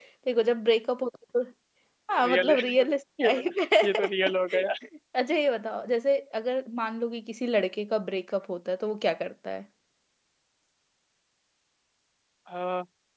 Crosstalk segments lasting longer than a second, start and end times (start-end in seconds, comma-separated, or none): none